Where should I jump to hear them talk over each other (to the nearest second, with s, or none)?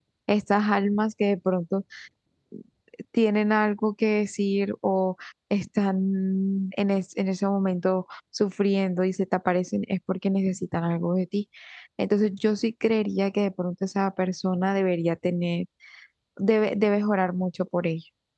none